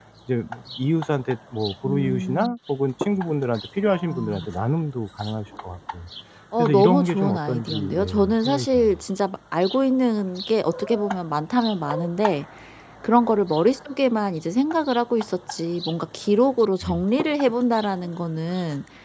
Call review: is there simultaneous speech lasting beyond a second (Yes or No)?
Yes